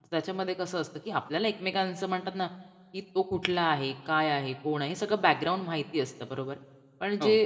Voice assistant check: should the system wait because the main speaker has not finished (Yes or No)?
Yes